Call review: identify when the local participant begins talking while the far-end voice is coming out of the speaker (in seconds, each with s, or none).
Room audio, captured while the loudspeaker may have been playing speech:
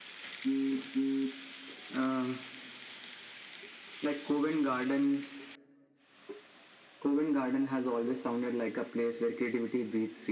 none